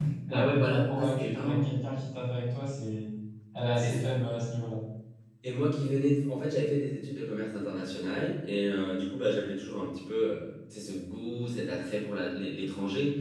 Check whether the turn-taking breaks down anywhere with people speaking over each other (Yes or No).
Yes